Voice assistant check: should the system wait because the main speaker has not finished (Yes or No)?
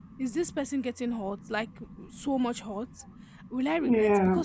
Yes